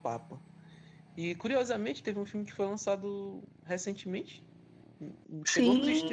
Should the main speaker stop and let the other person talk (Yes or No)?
No